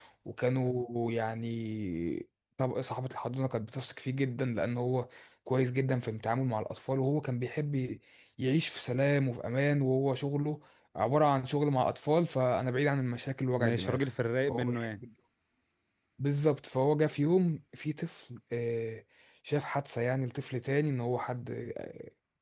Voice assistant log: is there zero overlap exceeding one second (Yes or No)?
Yes